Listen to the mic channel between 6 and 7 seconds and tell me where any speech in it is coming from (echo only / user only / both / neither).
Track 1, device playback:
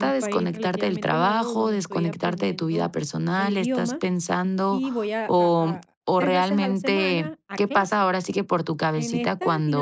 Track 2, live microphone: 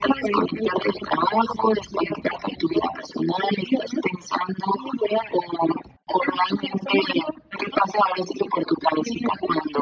echo only